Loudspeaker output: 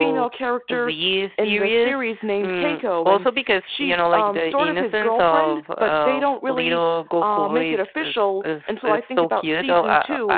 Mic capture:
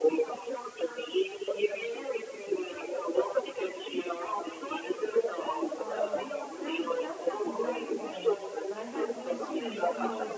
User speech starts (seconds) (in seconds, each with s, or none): 5.8 s